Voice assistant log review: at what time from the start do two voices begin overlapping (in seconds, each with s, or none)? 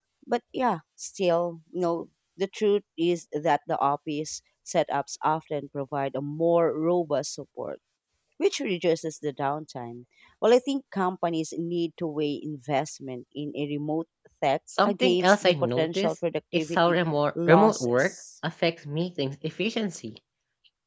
14.7 s